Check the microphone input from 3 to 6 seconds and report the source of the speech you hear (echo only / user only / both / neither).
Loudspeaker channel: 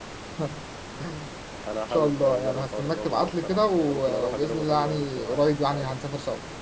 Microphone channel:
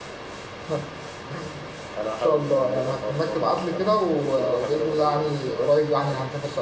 echo only